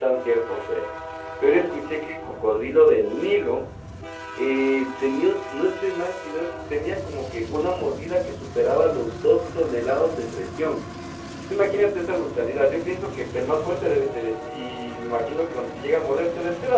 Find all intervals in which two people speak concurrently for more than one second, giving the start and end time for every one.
none

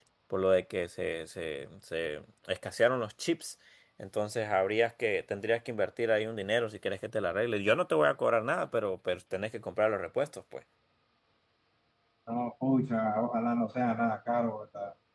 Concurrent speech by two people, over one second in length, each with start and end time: none

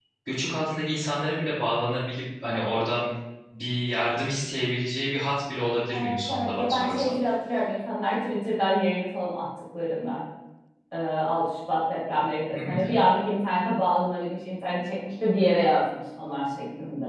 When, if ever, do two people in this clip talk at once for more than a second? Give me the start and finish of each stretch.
6.0-7.2

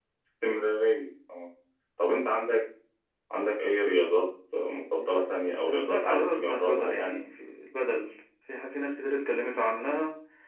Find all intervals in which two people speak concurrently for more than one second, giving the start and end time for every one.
5.6-7.2

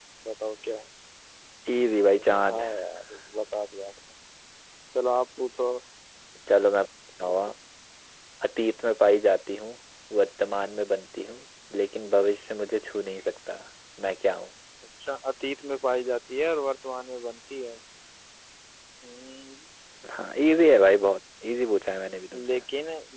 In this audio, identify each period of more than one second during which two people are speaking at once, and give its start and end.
none

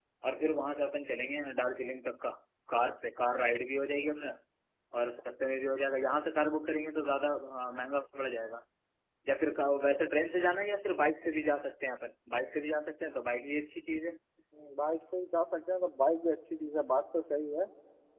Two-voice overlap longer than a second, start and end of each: none

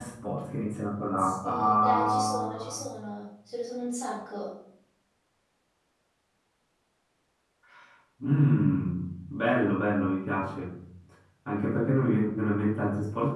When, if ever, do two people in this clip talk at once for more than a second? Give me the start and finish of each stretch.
1.2-2.8

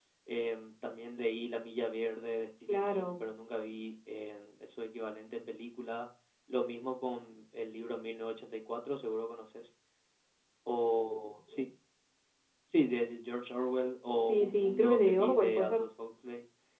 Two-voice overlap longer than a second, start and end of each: 14.2-15.8

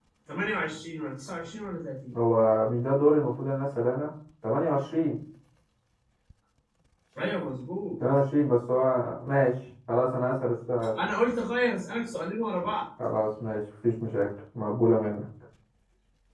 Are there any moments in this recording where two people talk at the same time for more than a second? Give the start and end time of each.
none

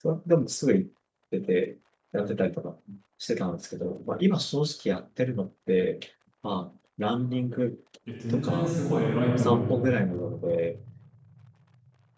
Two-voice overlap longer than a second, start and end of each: 8.3-9.8

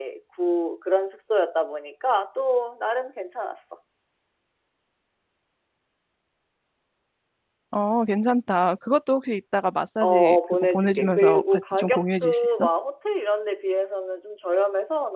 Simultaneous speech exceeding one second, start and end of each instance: 10.0-12.7

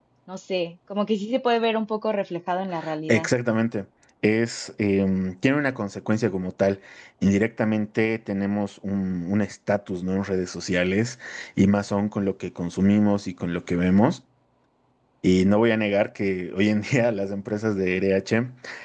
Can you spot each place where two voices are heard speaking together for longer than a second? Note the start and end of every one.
none

